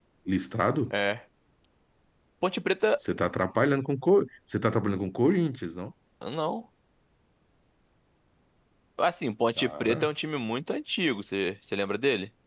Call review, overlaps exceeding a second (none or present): none